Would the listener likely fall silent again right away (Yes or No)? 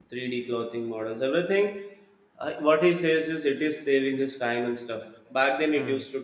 Yes